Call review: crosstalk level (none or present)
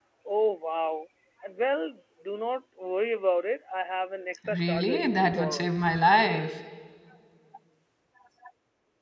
present